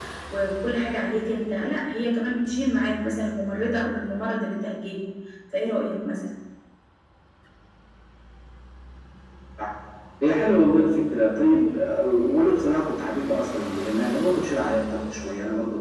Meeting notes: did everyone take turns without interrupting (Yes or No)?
Yes